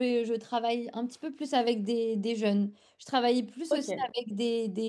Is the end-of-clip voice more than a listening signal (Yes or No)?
No